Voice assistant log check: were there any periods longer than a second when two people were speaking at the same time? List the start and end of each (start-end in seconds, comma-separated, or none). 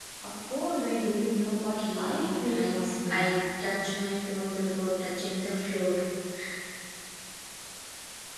1.5-3.4